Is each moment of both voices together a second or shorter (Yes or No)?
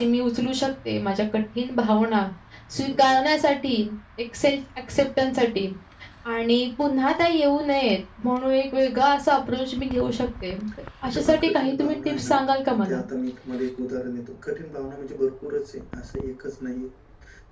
No